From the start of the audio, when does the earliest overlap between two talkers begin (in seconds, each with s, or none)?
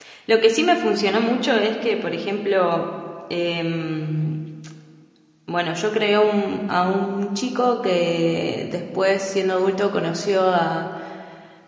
none